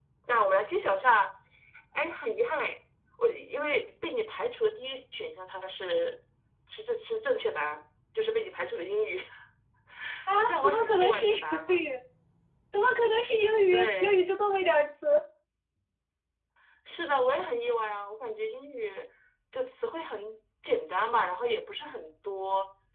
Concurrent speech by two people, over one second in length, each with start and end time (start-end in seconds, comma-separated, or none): 10.4-11.8